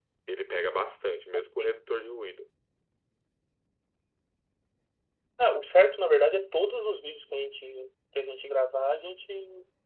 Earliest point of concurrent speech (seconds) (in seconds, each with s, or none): none